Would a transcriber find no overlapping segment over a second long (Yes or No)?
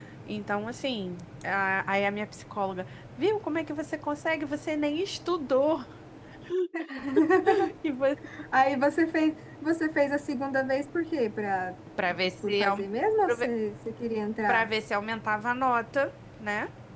Yes